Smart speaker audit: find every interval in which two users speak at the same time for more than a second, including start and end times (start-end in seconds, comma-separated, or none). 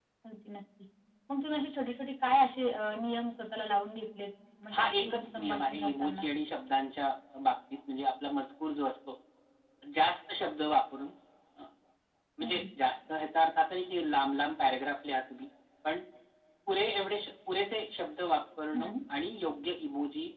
4.7-6.2